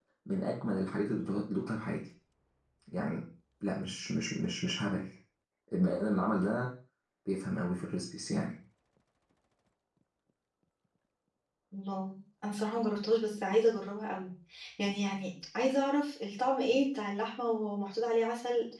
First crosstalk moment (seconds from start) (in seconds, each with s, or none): none